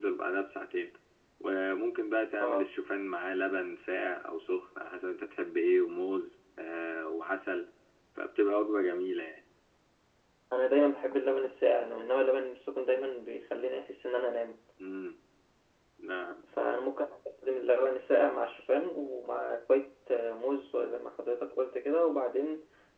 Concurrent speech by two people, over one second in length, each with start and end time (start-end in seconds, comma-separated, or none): none